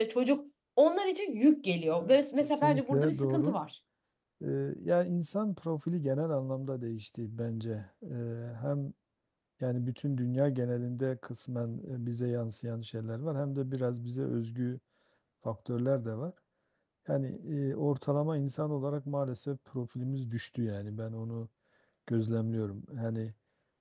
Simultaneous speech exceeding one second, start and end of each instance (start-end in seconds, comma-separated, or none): 2.0-3.6